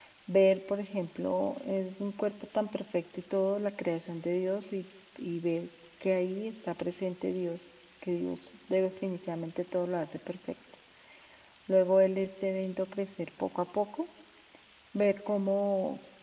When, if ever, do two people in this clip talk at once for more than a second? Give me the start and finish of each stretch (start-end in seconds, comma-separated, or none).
none